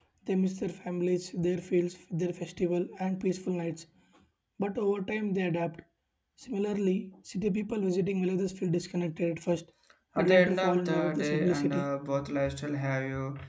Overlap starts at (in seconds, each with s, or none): 10.2 s